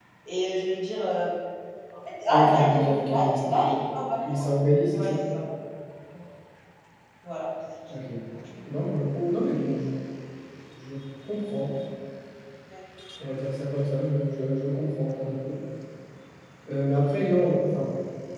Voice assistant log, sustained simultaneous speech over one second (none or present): present